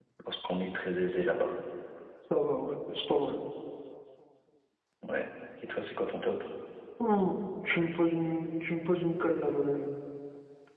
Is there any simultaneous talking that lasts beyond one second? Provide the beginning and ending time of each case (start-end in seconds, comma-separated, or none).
none